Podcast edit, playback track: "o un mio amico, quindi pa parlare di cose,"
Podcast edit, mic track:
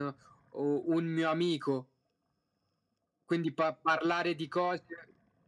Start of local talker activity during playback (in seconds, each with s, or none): none